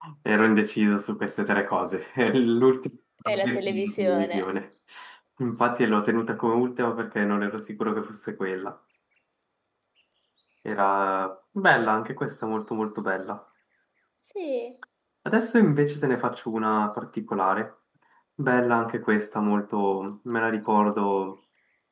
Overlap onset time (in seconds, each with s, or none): 3.2 s